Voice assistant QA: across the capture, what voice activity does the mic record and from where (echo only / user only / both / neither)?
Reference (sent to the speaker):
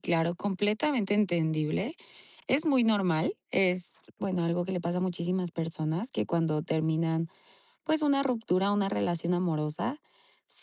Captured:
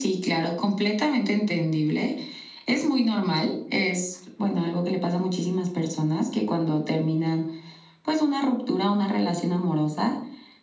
echo only